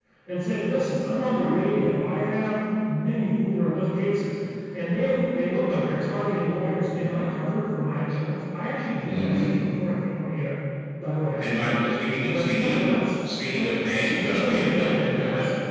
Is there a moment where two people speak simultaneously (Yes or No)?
Yes